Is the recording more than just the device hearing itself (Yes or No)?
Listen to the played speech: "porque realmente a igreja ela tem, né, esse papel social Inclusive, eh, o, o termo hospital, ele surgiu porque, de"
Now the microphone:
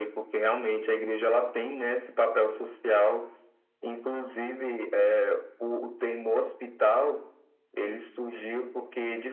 No